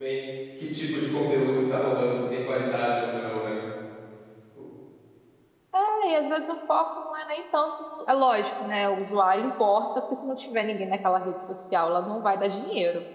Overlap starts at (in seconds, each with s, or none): none